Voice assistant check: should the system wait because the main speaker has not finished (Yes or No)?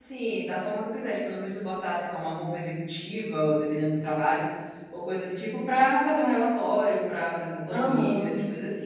Yes